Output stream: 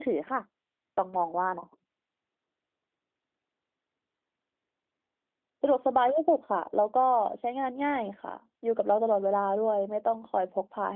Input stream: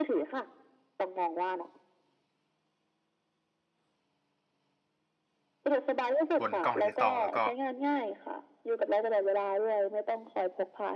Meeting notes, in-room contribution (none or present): present